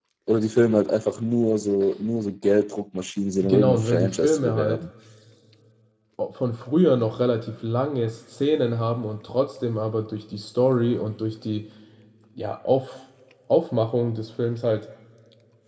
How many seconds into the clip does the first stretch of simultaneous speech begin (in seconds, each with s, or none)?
3.4 s